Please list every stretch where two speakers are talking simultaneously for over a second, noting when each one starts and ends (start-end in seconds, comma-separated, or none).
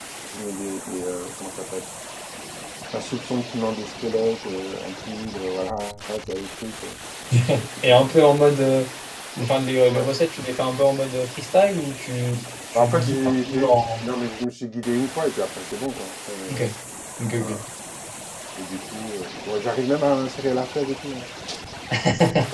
12.8-14.1